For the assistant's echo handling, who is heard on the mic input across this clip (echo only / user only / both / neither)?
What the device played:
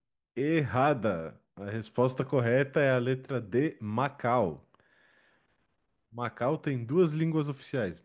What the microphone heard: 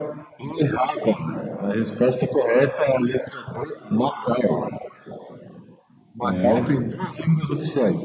both